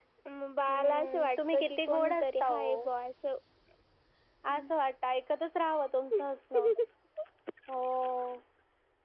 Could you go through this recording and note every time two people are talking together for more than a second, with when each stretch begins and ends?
0.7-2.9

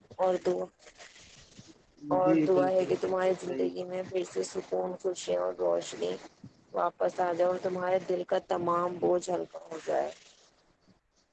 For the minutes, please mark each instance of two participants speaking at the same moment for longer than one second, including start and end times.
2.2-3.8

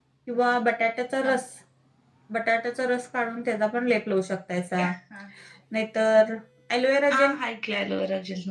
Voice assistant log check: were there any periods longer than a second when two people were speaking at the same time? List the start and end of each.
none

